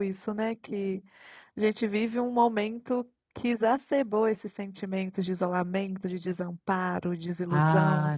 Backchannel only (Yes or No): No